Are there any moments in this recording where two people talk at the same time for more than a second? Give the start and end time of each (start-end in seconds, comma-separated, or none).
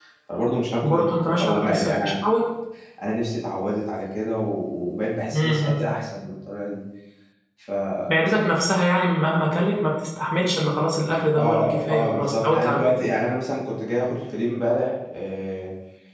0.8-2.1, 11.2-13.0